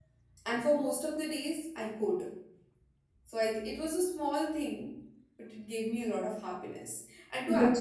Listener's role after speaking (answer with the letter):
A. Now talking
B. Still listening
B